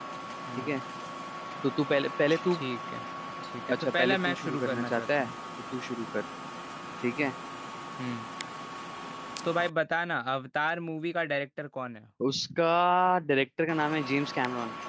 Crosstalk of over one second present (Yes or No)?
Yes